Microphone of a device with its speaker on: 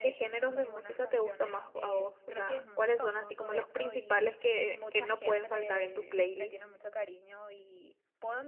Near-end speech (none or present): present